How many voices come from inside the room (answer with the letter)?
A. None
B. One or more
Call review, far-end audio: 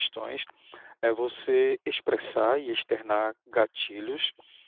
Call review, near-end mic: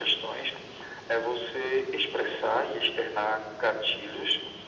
A